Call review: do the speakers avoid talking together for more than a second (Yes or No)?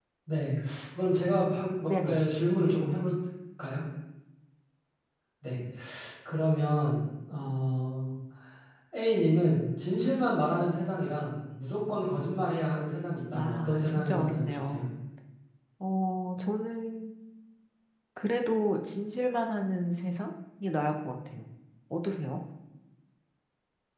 No